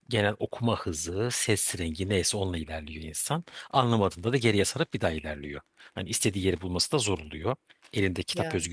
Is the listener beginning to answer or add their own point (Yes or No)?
No